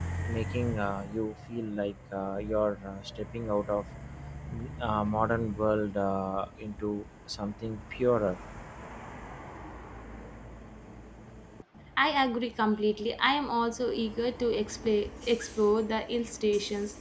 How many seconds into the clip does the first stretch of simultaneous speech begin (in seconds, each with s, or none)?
none